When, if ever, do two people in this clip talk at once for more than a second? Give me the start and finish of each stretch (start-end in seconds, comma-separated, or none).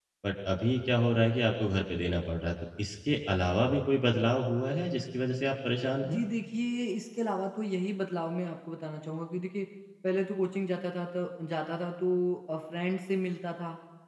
none